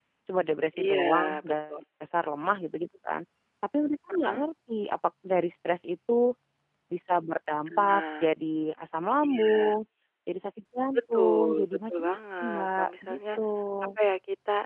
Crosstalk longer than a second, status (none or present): present